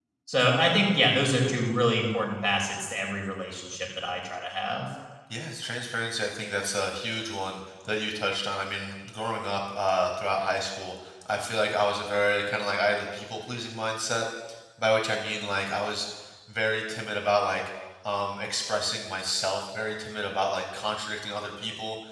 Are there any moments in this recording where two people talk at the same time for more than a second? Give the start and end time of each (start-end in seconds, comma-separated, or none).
none